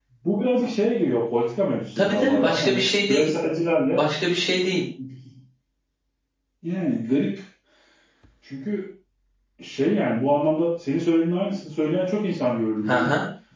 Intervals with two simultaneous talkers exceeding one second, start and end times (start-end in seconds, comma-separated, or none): 2.0-3.3